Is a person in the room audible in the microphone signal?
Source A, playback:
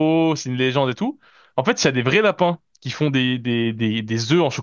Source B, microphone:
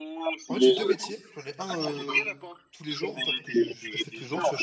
Yes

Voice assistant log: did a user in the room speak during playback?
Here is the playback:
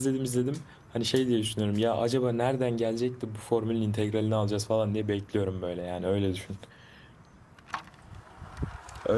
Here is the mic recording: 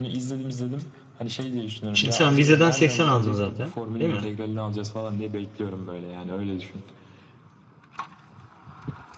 Yes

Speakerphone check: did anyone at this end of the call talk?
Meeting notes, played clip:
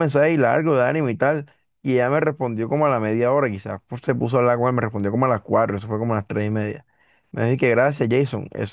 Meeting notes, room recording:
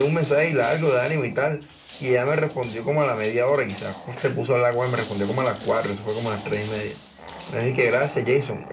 No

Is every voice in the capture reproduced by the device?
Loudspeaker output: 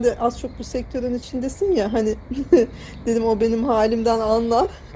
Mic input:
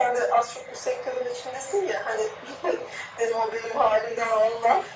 Yes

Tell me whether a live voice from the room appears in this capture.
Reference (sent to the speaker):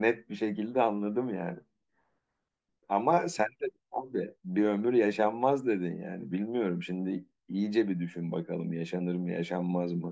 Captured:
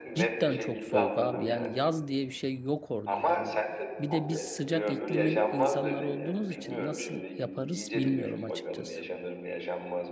Yes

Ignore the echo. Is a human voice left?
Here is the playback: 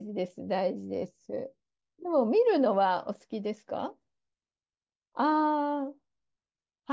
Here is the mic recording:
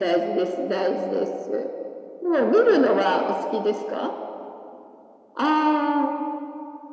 No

